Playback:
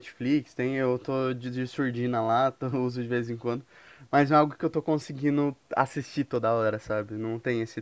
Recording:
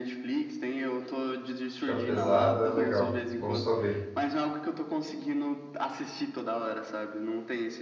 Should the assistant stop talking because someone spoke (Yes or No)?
Yes